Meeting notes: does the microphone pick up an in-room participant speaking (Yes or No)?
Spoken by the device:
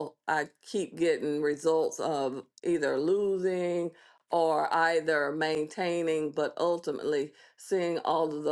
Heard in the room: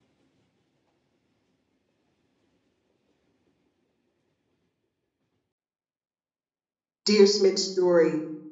Yes